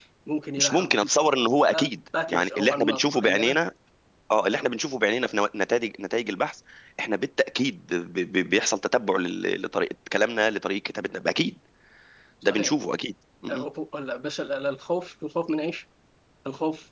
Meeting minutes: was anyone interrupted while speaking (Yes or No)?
Yes